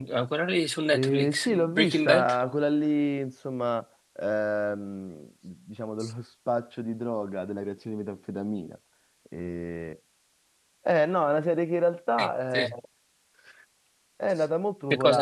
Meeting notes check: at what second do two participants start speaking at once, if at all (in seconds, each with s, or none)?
0.9 s